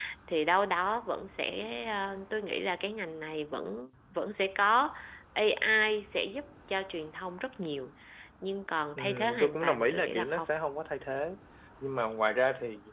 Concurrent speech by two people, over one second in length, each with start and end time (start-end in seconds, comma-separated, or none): 8.9-10.5